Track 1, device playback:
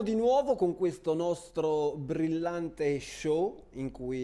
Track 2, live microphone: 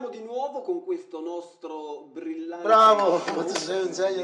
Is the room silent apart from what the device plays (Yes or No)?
No